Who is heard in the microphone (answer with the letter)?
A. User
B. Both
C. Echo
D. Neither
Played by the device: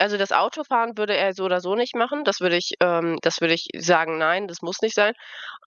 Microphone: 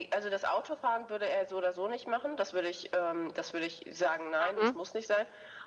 B